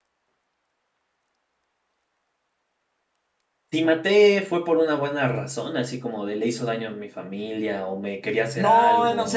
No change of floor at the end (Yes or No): No